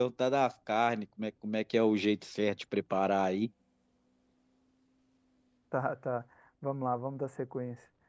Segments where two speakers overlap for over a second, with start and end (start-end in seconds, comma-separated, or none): none